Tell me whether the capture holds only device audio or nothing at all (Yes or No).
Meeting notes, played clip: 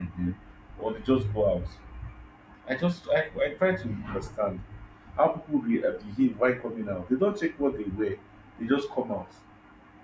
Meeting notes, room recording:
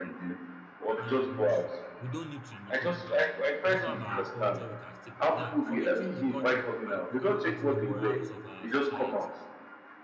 No